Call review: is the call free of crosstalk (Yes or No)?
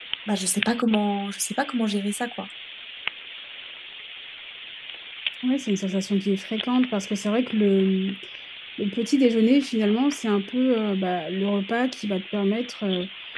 Yes